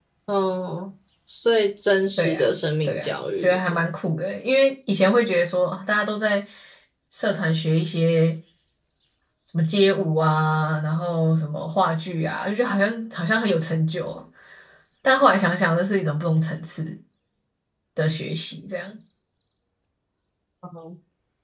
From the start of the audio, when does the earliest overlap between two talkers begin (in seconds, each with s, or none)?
2.2 s